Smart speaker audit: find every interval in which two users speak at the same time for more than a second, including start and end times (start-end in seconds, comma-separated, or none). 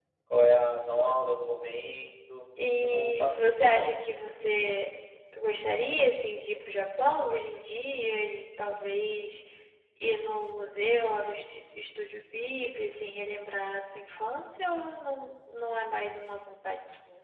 2.6-3.9